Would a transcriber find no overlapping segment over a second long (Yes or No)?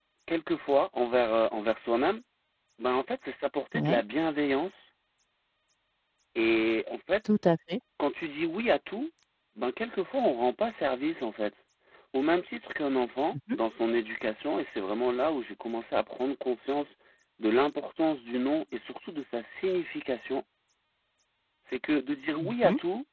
Yes